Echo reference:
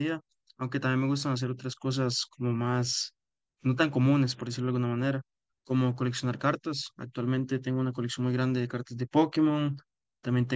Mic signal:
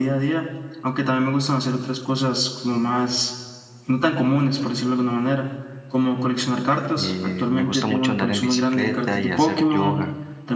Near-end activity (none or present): present